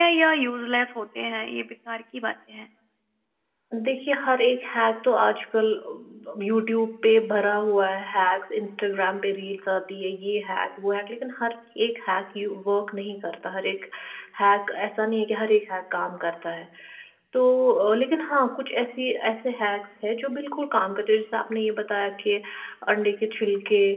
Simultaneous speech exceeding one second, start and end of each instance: none

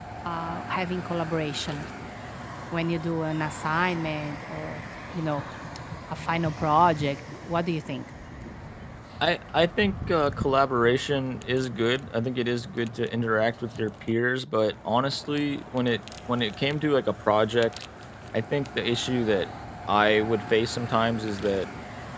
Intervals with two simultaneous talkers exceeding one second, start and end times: none

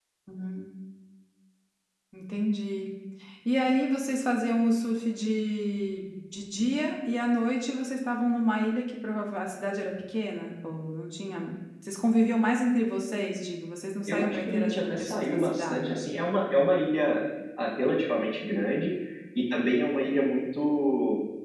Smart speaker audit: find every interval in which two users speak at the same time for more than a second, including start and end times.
14.1-16.0

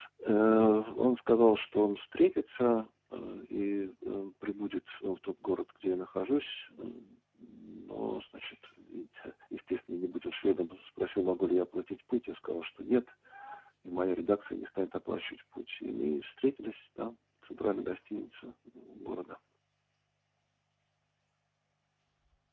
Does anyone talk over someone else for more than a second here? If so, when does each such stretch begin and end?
none

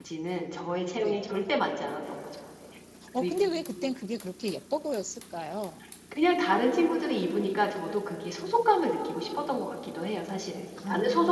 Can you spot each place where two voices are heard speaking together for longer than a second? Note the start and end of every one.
none

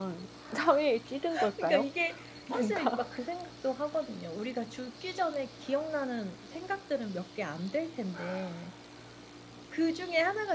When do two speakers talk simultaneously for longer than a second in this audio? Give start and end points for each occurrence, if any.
none

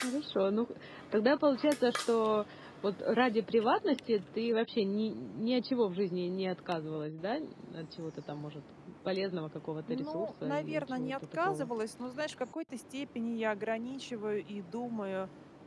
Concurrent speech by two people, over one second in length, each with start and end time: 9.9-11.7

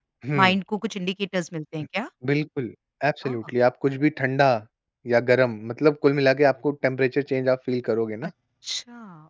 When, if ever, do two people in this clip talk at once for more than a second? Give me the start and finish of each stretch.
none

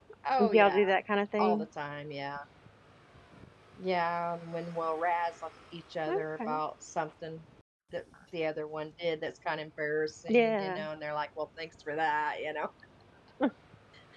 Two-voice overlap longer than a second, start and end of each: none

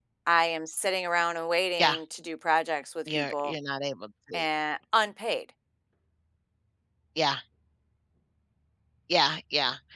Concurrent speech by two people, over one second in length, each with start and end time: none

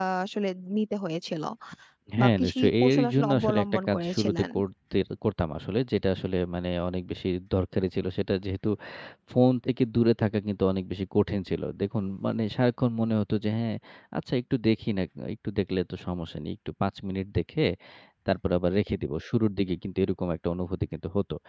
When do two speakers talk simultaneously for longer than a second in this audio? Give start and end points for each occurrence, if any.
2.2-4.5

